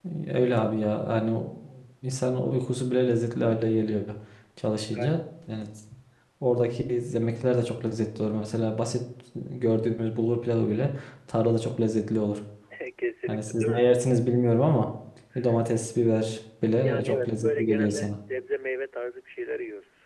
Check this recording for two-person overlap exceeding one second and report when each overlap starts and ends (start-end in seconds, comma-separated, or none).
16.8-18.1